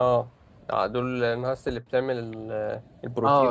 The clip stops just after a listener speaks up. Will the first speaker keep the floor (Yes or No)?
No